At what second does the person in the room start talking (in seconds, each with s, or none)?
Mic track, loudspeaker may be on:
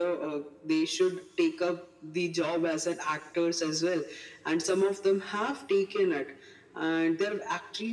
none